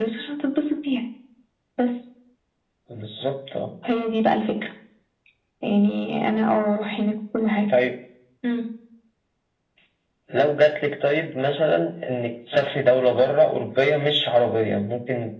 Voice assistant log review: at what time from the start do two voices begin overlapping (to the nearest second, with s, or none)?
none